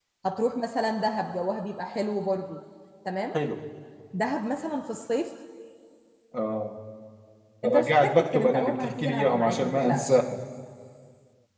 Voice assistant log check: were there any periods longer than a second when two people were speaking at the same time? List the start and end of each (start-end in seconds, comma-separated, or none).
7.7-10.2